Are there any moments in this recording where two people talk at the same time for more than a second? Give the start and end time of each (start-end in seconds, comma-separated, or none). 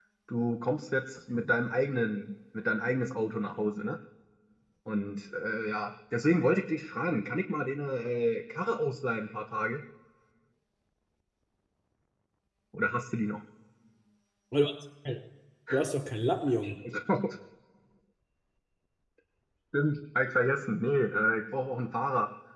none